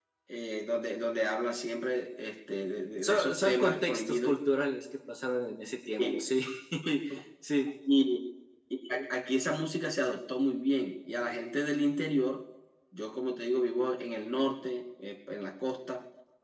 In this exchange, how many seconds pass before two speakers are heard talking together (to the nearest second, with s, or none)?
3 s